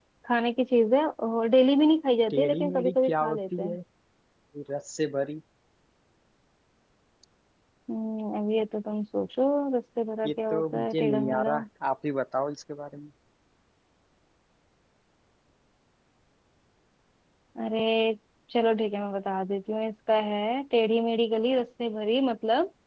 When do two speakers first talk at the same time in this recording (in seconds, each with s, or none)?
2.3 s